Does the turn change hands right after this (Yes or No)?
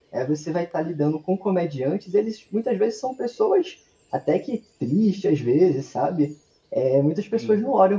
No